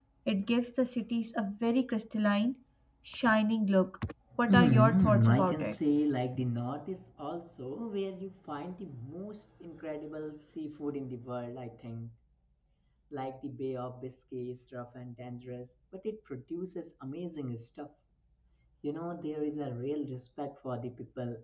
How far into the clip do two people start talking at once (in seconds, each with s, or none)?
4.5 s